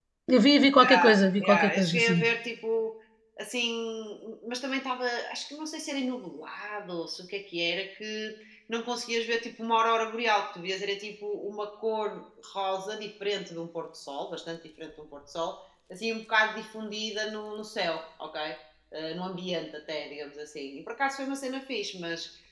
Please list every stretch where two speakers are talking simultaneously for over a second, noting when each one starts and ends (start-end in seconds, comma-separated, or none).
0.8-2.2